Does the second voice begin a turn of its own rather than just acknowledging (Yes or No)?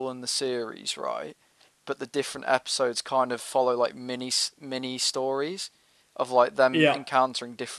No